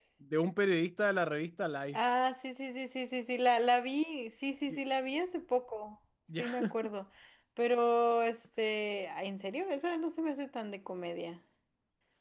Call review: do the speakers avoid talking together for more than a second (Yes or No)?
Yes